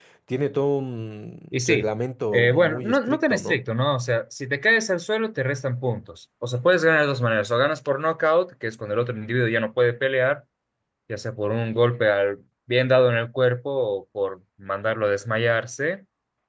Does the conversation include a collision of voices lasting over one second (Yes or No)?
Yes